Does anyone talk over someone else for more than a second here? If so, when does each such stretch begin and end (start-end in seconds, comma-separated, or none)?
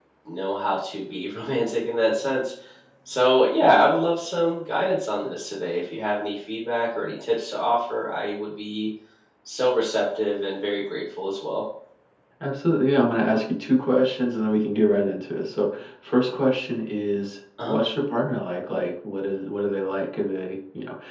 none